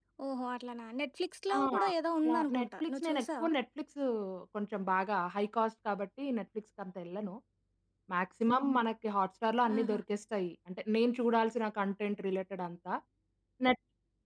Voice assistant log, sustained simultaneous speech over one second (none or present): present